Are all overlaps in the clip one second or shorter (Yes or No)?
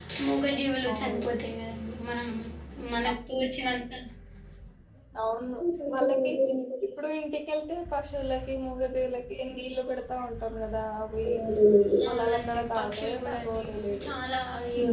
No